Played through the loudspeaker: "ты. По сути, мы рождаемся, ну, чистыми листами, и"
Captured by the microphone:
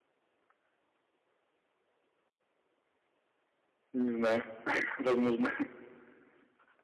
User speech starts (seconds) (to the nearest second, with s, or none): 4 s